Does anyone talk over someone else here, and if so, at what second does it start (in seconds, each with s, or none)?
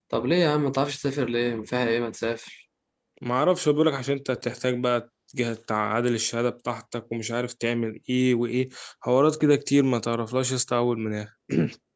none